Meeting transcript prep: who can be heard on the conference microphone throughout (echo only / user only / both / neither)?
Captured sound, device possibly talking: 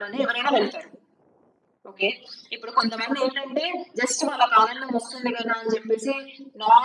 echo only